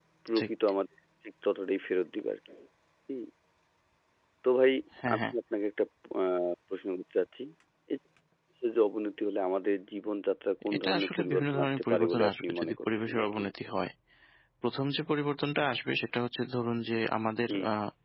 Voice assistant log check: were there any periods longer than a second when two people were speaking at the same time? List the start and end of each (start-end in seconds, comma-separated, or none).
10.8-13.4